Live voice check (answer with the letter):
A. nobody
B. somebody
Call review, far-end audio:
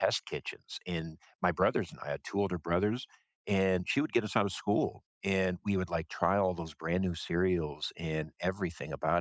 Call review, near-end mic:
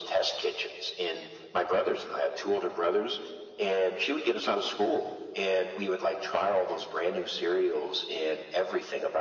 A